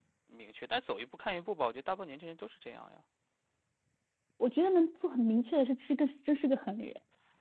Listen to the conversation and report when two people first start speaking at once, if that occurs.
none

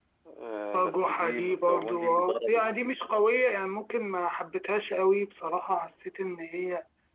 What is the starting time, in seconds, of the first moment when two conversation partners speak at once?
1 s

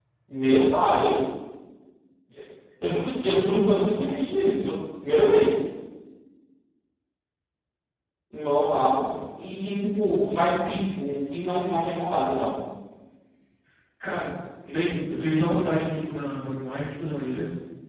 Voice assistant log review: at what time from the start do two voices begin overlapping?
none

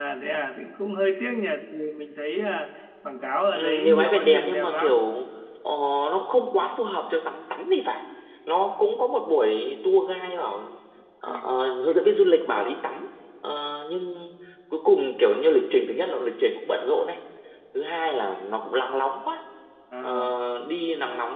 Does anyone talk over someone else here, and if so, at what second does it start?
4 s

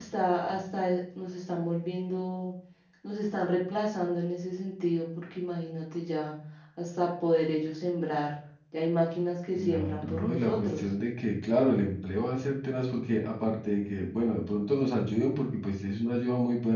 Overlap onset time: 10 s

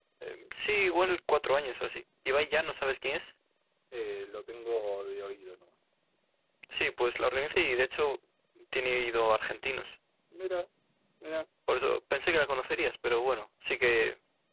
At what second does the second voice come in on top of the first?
none

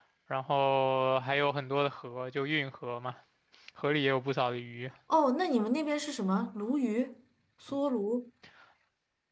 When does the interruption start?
none

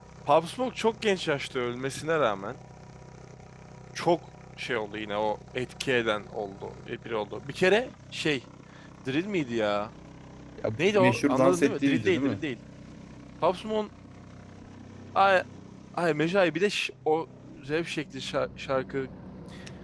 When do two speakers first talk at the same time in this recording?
11 s

